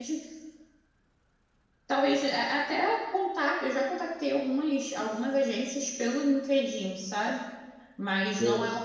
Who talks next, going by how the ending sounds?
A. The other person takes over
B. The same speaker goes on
B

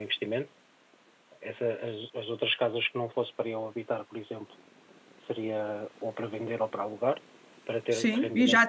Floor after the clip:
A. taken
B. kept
A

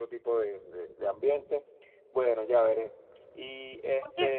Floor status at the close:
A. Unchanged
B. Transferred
B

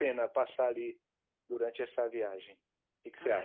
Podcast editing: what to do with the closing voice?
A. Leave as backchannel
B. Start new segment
B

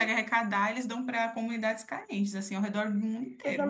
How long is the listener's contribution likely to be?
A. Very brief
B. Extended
B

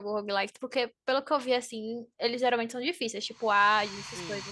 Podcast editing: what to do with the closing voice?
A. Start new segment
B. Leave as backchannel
A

